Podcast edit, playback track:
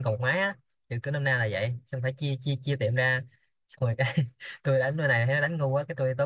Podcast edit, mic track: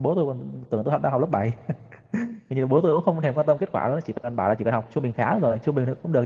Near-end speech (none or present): present